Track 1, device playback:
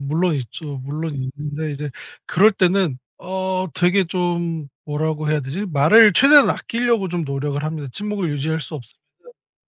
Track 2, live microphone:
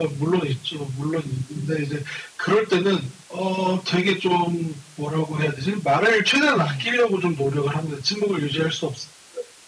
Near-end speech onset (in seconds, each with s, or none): 6.5 s